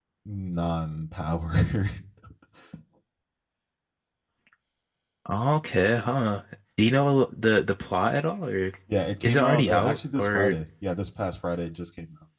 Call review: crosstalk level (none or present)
present